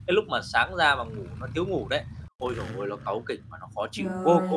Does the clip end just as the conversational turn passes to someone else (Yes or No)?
Yes